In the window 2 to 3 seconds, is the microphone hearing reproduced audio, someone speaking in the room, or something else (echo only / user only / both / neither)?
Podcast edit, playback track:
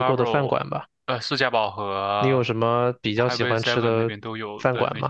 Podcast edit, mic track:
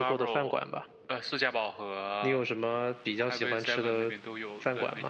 echo only